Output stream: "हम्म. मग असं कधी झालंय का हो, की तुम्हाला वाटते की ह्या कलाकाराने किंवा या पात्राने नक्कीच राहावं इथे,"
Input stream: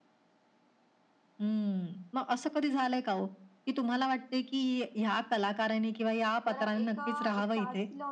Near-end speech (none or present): present